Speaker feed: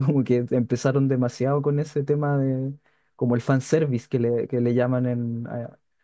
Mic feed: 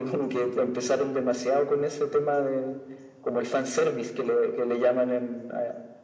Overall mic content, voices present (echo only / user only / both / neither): echo only